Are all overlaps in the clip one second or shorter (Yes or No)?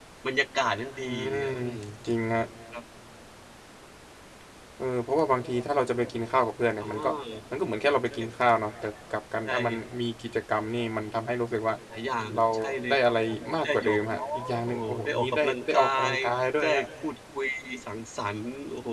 No